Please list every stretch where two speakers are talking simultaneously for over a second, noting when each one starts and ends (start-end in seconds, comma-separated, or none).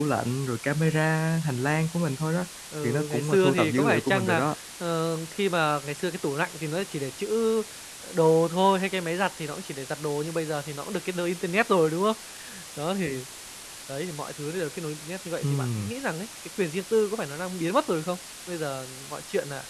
2.8-4.5